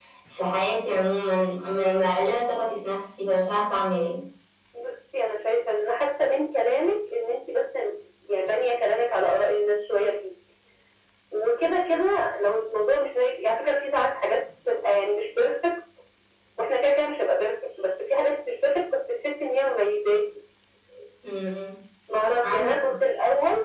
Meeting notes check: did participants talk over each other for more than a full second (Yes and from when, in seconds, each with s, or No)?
No